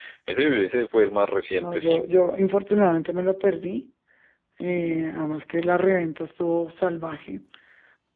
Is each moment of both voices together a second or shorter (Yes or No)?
Yes